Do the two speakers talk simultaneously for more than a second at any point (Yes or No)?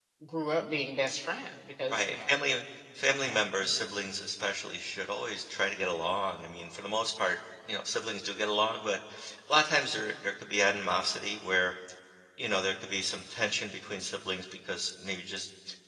No